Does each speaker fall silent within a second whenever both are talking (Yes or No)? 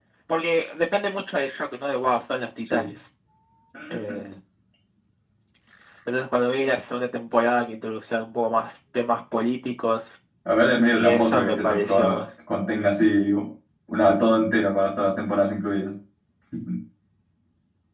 No